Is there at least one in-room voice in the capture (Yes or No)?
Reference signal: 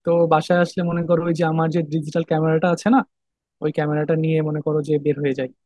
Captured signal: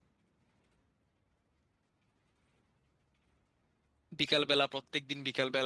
Yes